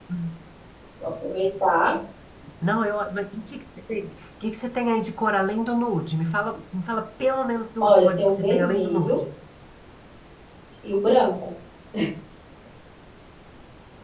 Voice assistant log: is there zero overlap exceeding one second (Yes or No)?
No